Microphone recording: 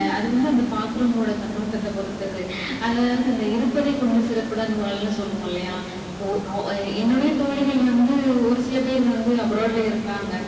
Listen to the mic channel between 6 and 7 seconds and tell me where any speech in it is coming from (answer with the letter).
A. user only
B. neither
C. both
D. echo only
D